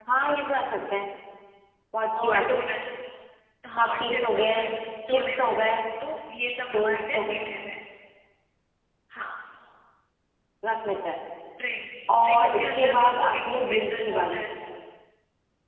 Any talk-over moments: Yes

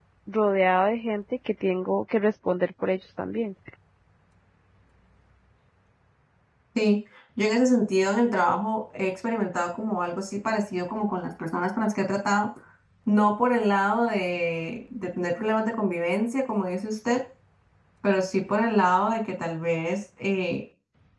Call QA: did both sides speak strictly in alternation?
Yes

